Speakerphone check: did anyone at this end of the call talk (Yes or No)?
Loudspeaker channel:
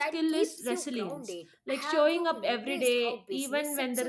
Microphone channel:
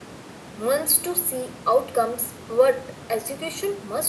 Yes